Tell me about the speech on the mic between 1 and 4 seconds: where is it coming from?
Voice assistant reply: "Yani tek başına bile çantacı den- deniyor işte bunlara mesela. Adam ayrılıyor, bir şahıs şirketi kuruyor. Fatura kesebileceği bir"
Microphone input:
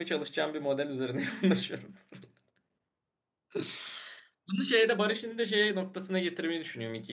user only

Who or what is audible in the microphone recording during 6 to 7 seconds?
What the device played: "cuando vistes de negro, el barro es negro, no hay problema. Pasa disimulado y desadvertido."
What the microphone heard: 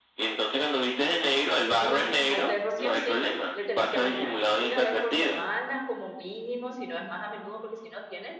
user only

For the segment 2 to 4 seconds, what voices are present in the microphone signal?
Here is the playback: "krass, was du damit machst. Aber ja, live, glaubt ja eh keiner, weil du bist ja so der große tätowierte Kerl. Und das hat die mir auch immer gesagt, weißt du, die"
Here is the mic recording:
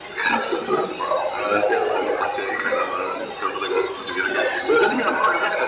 echo only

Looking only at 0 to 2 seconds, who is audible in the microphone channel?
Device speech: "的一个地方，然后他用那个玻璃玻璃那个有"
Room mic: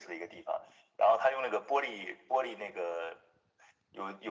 echo only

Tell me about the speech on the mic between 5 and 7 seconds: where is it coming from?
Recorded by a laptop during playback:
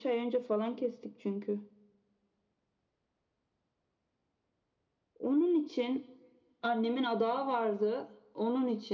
echo only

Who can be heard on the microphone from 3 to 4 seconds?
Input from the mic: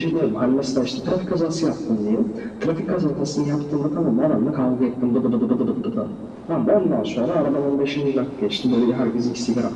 echo only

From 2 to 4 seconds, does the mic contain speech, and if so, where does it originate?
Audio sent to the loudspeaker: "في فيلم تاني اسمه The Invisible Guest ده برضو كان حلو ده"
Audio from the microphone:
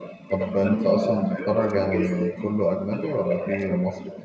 both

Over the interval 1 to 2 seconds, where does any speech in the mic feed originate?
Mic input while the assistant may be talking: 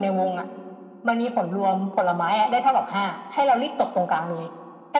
echo only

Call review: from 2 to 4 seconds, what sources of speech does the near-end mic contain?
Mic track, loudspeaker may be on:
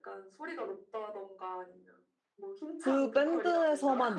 both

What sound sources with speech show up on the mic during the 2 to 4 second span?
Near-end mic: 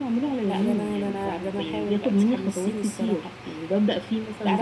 echo only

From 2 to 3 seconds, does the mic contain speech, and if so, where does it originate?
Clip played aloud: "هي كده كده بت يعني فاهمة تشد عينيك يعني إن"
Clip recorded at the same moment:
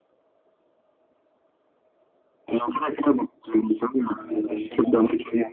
echo only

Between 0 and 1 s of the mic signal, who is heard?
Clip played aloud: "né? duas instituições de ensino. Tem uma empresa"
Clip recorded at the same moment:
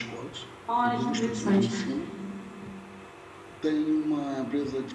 both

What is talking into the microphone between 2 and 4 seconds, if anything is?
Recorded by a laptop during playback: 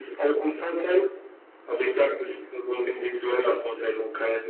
echo only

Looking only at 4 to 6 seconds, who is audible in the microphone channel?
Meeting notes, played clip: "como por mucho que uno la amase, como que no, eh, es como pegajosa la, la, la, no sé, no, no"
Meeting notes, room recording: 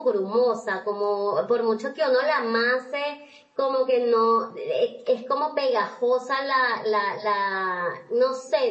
echo only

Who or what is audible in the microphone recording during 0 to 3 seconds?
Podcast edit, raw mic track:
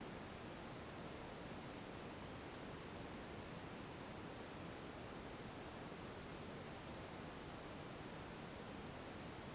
neither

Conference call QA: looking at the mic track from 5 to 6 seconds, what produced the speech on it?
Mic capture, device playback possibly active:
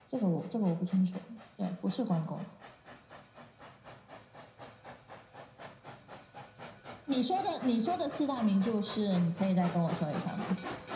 neither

